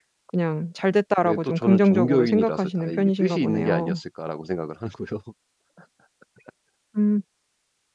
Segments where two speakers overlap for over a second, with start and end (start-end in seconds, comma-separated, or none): 1.2-4.0